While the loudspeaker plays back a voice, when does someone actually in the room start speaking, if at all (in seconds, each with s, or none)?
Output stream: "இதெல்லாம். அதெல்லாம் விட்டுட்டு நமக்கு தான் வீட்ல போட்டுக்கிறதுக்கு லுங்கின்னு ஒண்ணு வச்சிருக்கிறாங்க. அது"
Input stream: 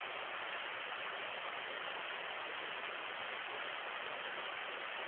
none